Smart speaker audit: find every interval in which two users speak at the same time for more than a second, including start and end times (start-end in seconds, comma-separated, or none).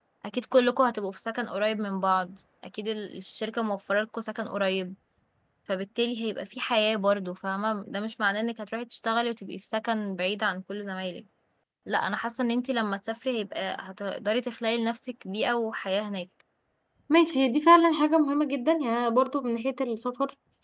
none